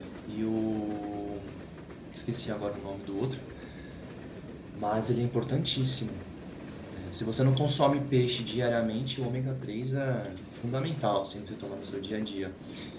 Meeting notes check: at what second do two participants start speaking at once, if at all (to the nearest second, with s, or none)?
none